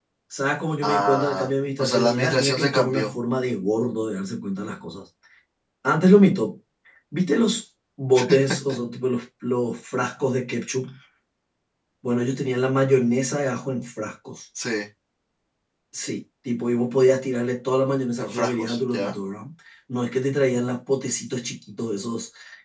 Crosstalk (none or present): present